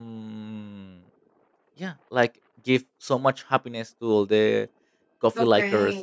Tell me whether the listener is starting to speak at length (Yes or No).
Yes